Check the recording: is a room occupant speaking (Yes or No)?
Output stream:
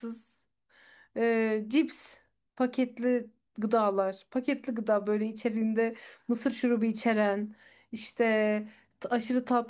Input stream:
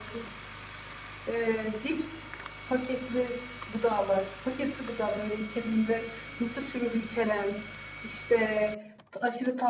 No